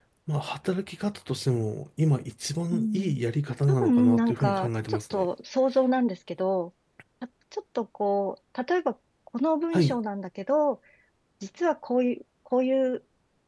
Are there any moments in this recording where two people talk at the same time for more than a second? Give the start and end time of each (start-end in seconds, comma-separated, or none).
3.6-5.3